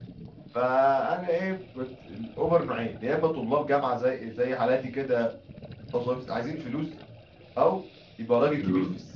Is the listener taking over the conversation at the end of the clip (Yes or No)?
No